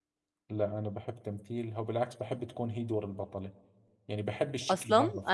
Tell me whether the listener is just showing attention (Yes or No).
No